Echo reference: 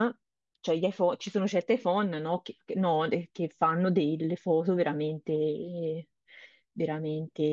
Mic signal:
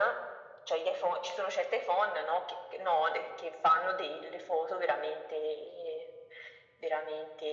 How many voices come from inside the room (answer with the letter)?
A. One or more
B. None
B